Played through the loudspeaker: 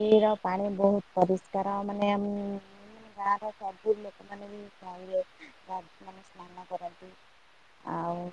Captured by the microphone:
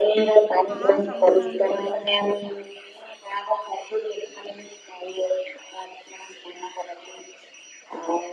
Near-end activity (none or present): present